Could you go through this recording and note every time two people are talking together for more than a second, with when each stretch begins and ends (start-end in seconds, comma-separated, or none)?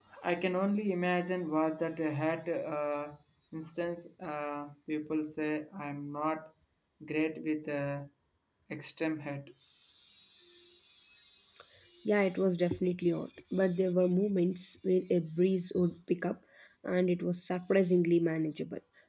none